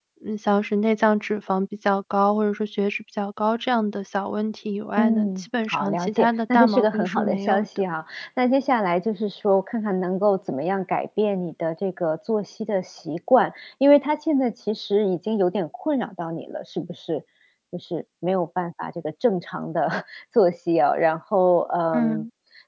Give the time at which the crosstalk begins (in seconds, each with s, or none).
5.0 s